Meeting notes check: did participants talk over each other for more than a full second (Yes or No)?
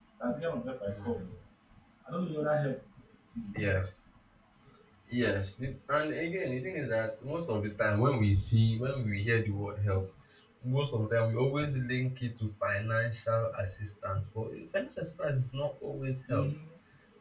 No